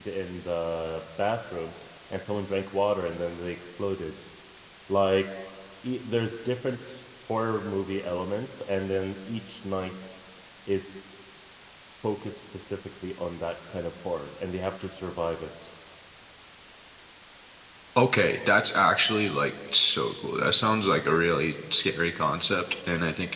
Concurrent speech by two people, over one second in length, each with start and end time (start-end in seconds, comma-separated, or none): none